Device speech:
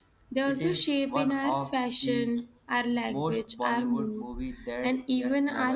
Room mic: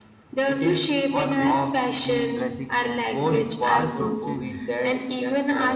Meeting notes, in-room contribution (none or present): present